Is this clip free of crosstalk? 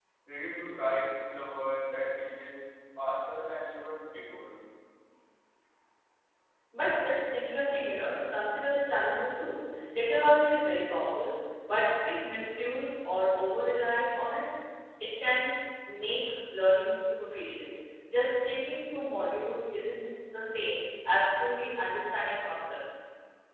Yes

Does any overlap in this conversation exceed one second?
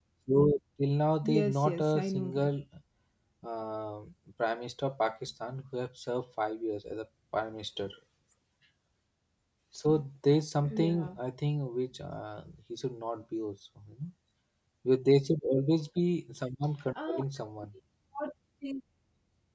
Yes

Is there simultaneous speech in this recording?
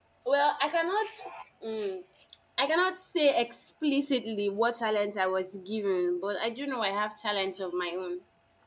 No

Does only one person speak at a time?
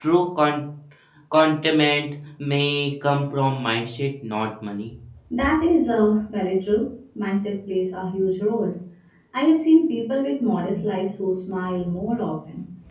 Yes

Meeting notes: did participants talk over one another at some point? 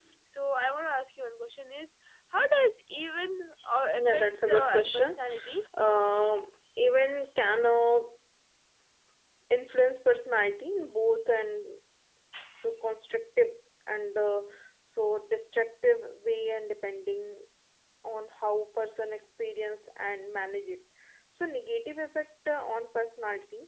Yes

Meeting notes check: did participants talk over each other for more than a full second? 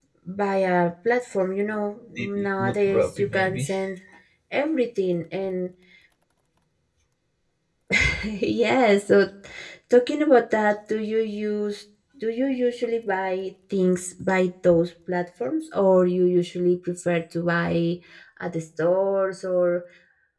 Yes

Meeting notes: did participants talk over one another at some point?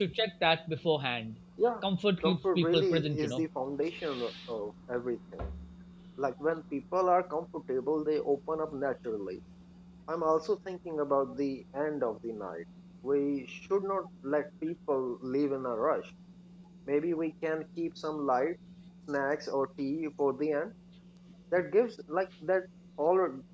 Yes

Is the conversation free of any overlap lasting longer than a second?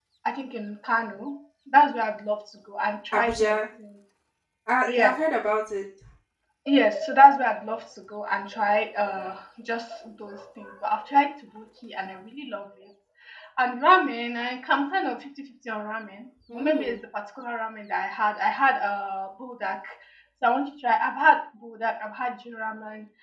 Yes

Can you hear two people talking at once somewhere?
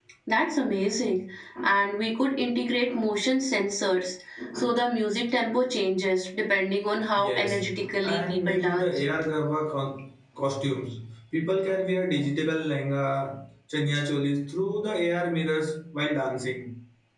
Yes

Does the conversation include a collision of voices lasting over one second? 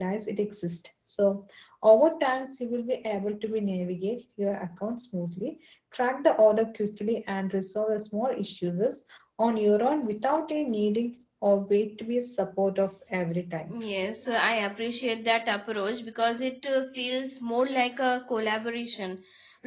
No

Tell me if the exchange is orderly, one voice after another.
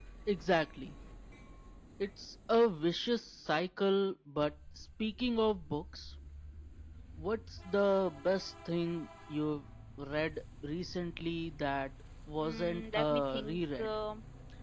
No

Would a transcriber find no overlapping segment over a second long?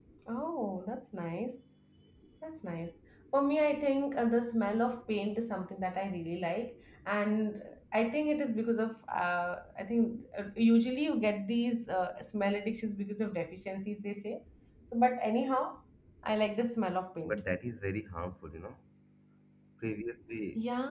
Yes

